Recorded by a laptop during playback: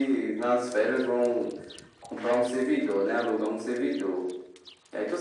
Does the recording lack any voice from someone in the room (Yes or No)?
Yes